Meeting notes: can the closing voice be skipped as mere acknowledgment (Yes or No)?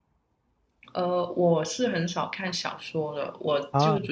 Yes